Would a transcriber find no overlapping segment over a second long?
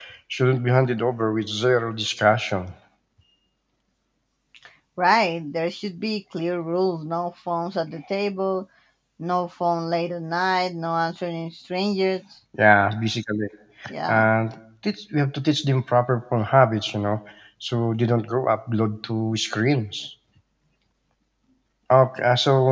Yes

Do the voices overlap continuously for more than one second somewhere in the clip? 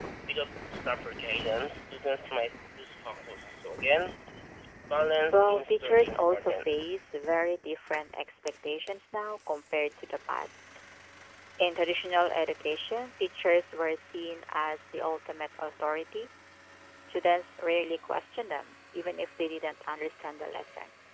Yes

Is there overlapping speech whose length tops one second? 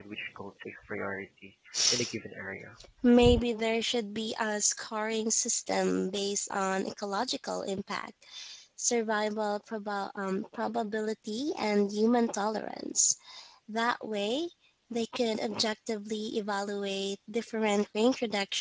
No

